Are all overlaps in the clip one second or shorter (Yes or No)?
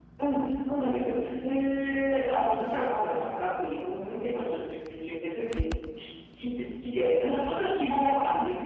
No